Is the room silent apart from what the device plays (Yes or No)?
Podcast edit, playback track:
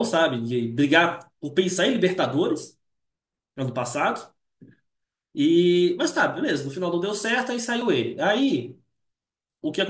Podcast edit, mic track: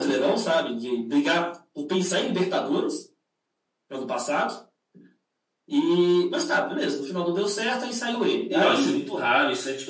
No